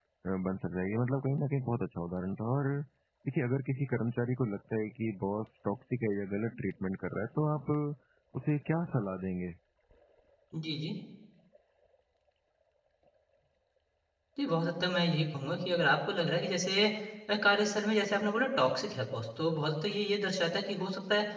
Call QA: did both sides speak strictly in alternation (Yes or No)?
Yes